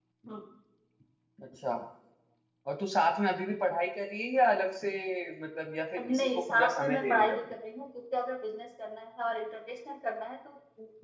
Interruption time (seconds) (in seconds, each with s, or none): 6.1 s